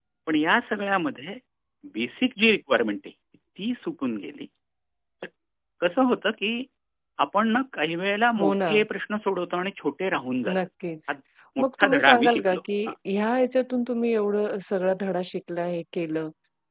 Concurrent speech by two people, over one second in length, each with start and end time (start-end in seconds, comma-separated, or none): 11.6-12.9